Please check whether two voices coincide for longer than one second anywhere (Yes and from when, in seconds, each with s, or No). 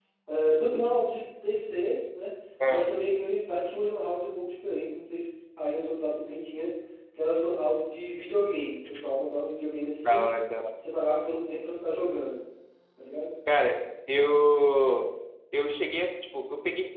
No